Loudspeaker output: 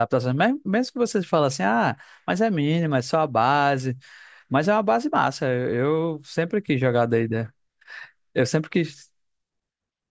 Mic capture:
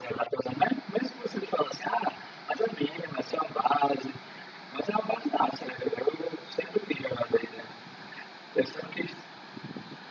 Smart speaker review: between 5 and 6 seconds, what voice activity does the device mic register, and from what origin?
echo only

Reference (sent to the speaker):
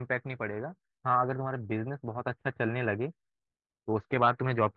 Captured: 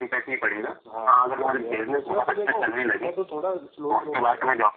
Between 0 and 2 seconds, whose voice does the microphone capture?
both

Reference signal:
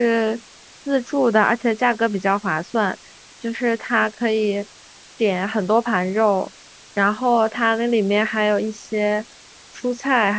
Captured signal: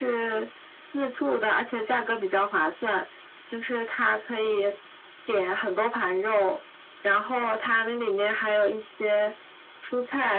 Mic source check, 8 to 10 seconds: echo only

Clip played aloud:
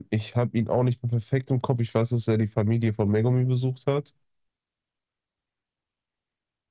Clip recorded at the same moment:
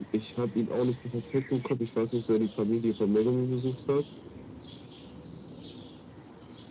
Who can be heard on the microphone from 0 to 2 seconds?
echo only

